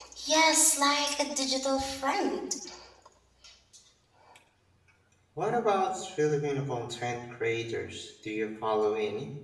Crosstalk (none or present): none